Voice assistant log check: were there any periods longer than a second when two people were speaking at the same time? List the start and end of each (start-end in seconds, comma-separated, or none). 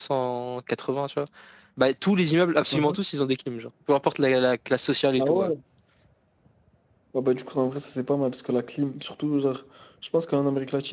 none